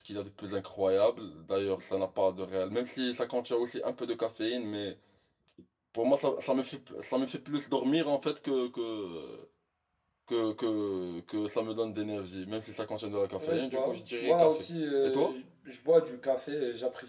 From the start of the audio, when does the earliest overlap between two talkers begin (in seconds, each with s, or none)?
13.4 s